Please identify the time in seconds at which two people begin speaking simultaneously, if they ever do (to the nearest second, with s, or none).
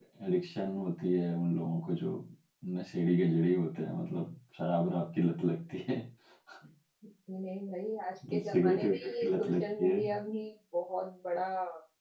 9 s